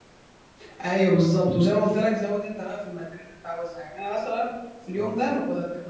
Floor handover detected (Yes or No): No